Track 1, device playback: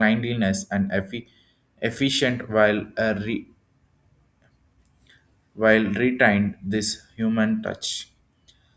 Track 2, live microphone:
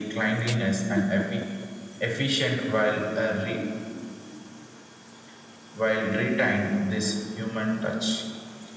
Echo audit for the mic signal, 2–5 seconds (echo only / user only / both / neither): echo only